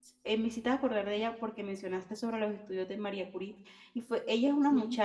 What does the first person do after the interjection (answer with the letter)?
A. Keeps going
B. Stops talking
A